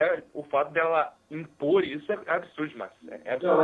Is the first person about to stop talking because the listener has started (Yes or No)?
Yes